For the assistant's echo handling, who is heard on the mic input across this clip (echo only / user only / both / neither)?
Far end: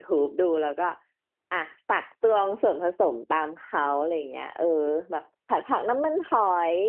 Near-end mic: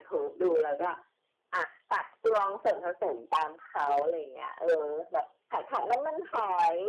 echo only